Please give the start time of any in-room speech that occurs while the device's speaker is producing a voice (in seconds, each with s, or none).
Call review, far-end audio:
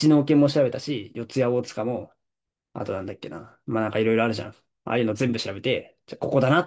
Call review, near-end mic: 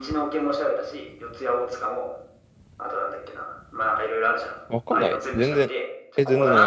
4.7 s